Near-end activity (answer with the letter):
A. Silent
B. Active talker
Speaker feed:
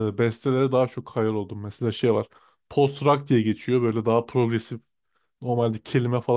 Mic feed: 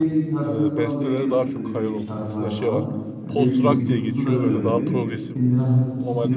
B